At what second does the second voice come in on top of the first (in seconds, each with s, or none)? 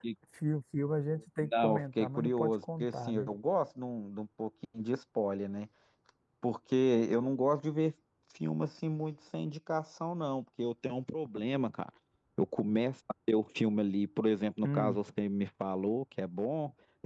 1.4 s